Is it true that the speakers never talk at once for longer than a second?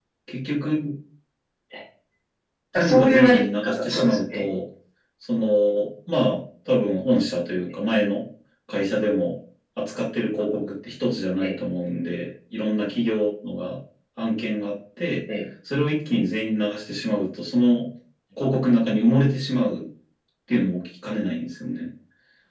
No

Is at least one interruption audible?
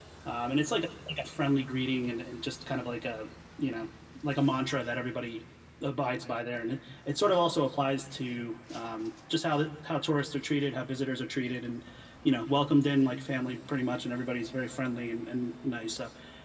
No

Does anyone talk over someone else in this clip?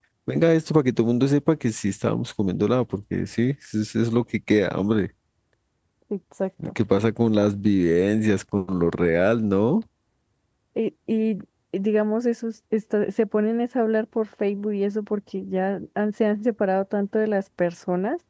No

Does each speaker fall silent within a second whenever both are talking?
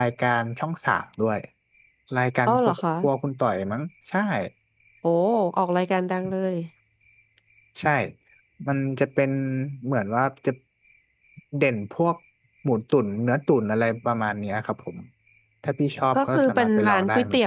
No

